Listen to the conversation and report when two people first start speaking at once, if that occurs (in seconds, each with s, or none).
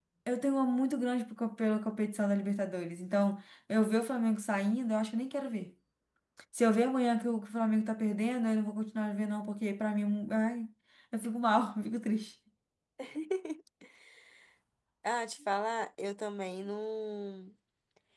none